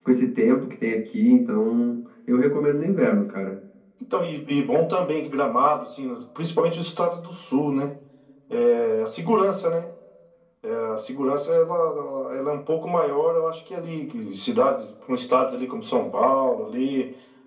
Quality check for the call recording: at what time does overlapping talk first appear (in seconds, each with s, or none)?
none